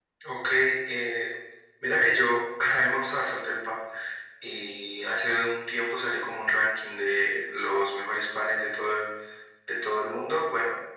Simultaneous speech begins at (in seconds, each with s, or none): none